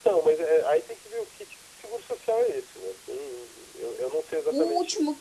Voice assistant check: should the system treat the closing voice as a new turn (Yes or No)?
Yes